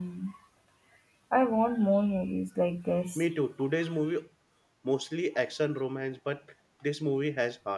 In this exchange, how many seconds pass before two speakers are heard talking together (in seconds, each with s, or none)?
none